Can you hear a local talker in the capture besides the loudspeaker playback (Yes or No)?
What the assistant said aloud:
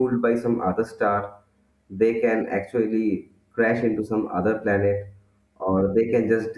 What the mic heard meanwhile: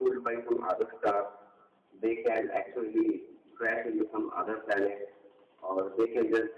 No